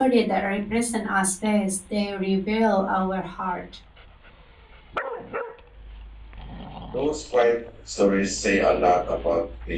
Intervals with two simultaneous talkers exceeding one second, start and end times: none

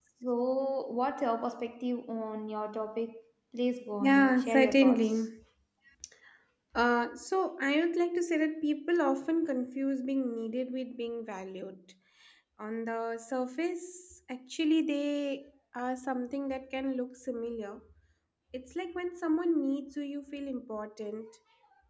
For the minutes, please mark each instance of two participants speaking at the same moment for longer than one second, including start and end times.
4.0-5.2

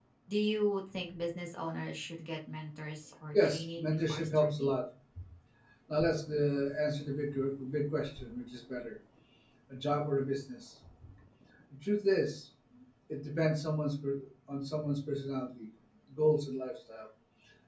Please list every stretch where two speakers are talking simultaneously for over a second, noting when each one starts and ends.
3.4-4.8

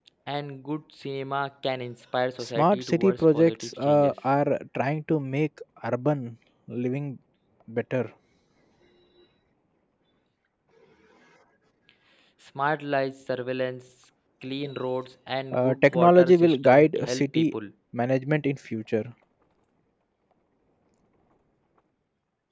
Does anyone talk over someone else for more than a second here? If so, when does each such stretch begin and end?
2.4-4.1, 15.5-17.5

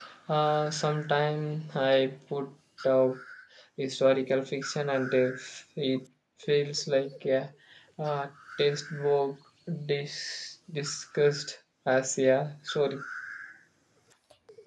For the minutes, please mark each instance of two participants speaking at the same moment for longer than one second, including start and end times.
none

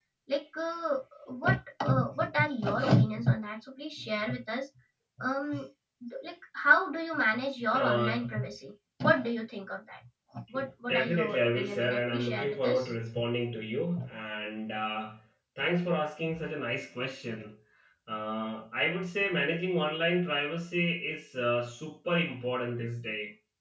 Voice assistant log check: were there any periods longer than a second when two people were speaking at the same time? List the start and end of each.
10.9-12.8

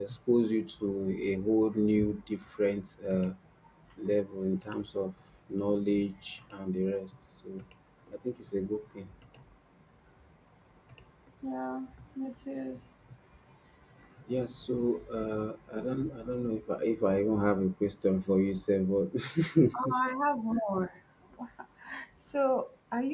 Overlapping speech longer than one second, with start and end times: none

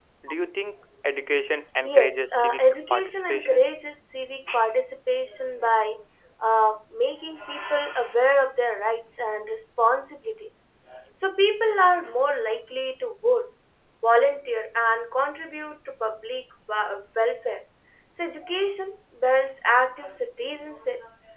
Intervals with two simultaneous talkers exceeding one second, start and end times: 1.8-3.7

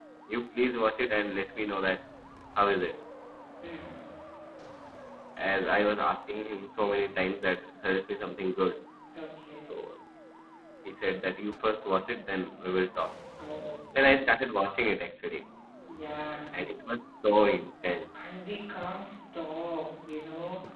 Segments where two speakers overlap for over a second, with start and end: none

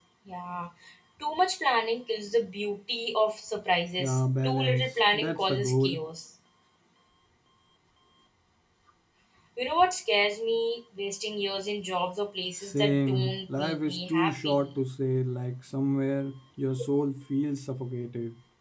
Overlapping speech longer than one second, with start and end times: 4.0-6.0, 12.6-14.5

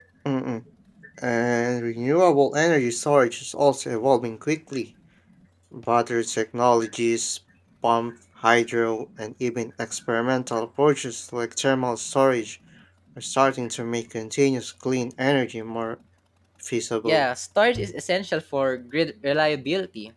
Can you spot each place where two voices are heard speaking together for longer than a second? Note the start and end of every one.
none

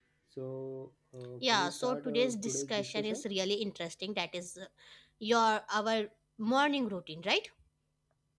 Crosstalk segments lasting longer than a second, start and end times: 1.4-3.2

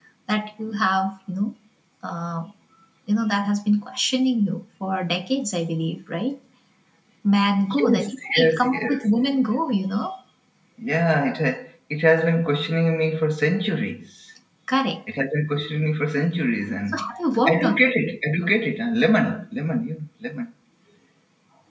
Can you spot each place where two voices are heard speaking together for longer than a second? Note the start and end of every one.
7.7-9.0

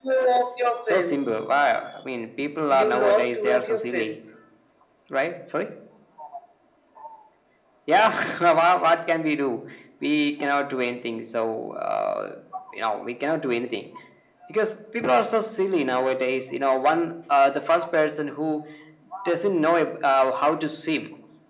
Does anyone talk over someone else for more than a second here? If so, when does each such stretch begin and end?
2.7-4.1

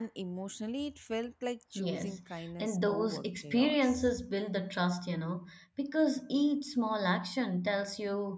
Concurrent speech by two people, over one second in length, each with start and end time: 2.6-4.1

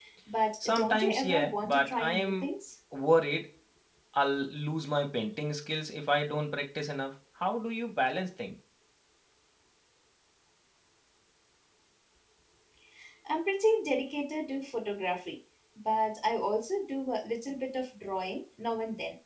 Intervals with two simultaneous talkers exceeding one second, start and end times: 0.7-2.5

